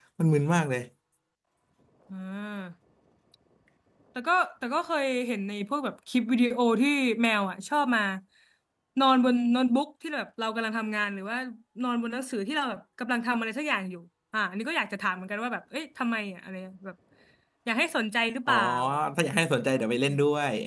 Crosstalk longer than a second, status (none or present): none